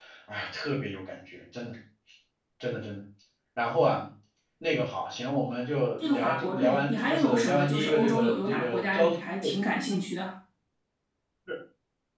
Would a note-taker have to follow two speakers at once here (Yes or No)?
Yes